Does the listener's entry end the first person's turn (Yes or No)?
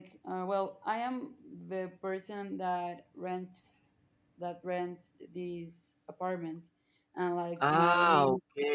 Yes